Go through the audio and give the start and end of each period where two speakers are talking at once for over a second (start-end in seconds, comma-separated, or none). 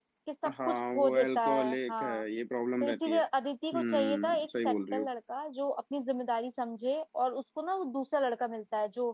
0.7-2.2, 3.7-5.0